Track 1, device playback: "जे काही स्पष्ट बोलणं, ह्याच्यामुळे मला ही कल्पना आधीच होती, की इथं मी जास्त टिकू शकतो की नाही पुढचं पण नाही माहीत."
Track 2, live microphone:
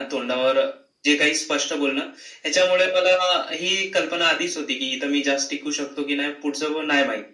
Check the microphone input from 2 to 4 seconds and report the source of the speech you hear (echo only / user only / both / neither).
echo only